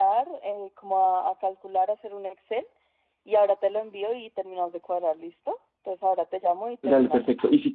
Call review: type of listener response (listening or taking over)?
taking over